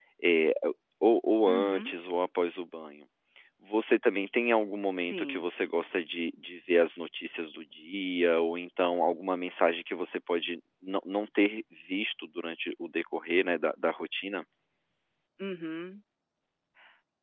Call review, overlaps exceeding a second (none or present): none